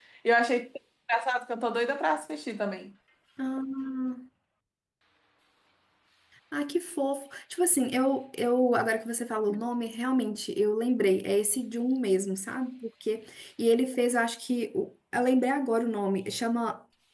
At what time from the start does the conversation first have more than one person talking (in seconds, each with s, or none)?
none